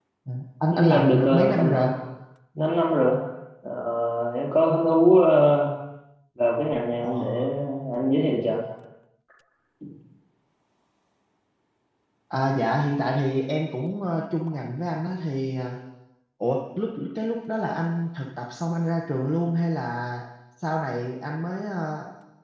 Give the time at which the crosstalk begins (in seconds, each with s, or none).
0.7 s